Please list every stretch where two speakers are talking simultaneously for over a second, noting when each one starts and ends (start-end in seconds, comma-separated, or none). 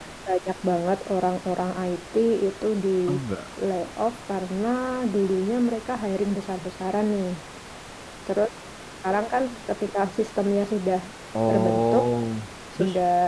none